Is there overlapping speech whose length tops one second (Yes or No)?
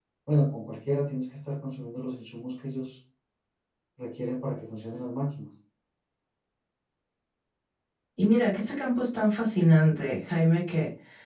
No